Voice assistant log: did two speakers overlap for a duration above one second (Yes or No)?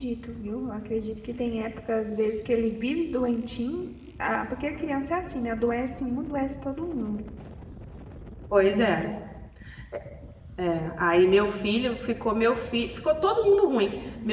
No